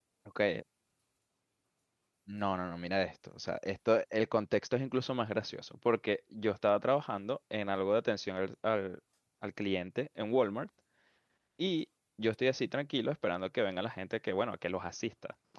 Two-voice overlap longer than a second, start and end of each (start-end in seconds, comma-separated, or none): none